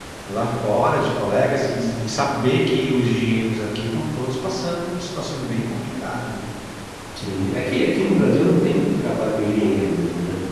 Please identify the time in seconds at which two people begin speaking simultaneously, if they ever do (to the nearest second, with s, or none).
none